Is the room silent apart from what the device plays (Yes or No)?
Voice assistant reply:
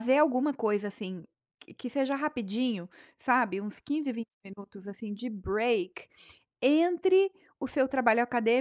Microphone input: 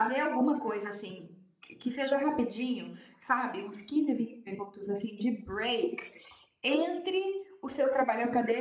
Yes